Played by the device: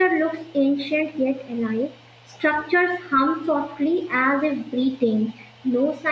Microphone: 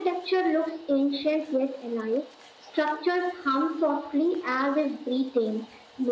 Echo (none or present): present